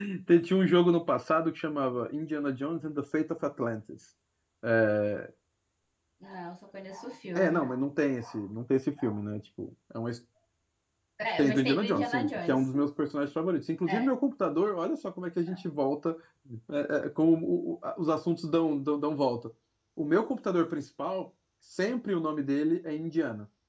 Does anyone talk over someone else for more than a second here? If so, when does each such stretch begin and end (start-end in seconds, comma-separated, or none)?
11.4-12.6